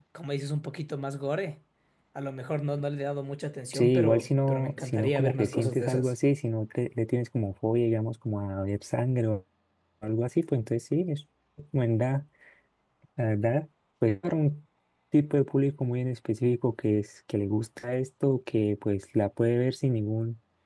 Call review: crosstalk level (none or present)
present